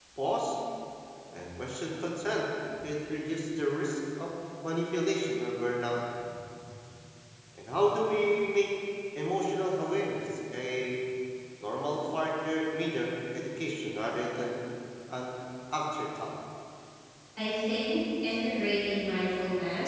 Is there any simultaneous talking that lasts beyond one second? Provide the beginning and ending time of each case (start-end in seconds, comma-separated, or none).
none